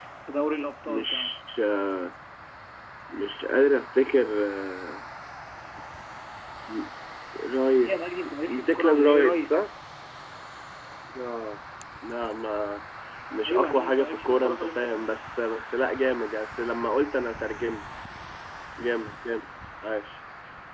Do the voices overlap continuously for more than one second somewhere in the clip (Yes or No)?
Yes